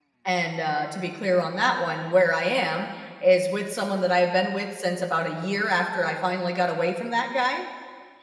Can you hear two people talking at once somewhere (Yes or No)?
No